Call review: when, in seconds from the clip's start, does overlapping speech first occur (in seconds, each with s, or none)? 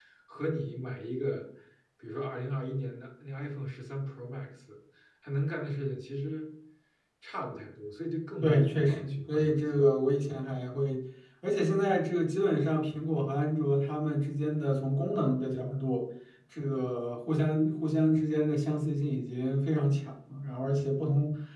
8.4 s